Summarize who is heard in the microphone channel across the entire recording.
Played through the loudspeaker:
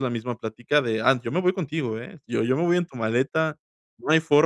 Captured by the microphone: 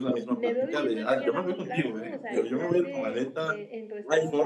both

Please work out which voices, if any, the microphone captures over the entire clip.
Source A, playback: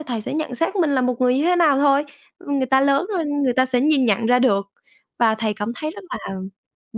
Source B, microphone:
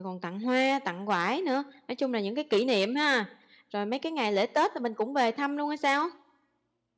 user only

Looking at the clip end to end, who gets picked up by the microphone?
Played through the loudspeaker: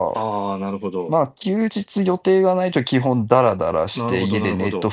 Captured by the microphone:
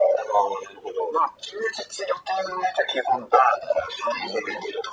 echo only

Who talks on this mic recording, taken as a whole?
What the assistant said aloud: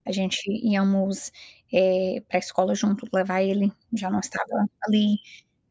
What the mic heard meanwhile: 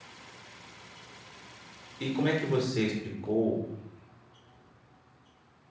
user only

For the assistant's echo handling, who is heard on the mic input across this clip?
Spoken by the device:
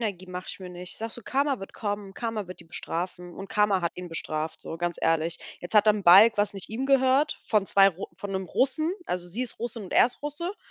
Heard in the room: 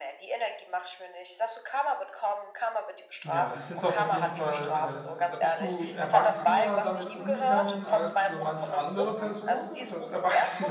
both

